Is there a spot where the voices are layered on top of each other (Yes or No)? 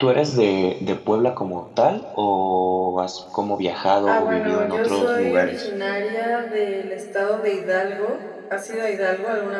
Yes